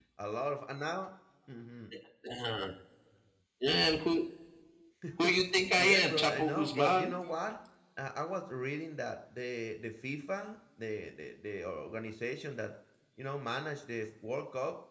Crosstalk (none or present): present